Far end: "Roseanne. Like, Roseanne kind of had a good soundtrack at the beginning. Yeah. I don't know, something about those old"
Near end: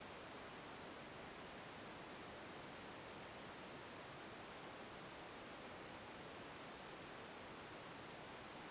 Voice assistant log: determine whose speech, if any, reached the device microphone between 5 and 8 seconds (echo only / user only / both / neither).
neither